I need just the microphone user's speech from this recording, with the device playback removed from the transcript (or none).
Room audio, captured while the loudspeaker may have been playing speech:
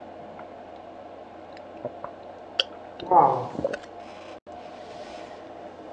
Wow.